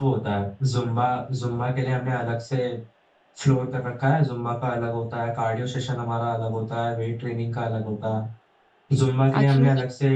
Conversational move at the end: listening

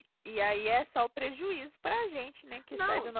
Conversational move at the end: taking over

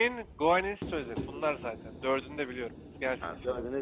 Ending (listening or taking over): taking over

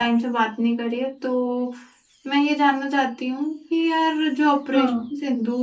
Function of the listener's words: listening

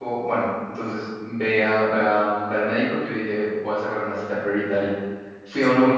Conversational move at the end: listening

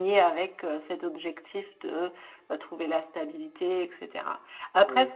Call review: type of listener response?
listening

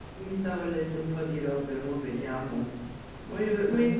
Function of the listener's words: listening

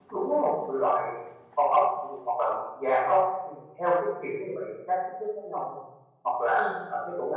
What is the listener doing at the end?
listening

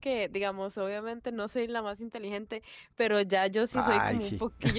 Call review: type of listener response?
listening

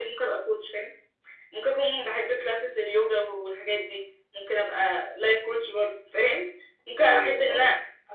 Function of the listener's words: listening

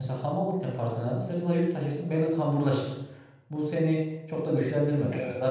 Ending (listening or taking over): listening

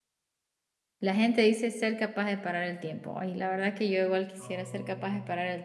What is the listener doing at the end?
listening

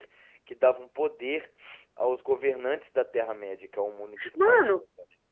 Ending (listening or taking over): taking over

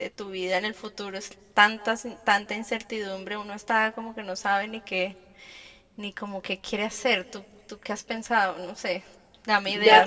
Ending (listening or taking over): taking over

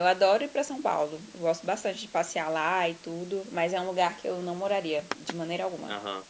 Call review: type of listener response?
taking over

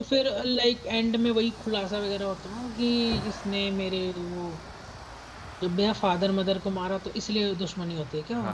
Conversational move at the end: taking over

